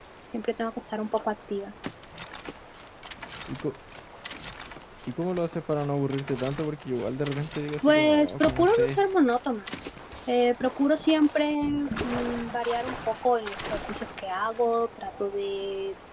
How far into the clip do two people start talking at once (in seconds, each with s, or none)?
7.8 s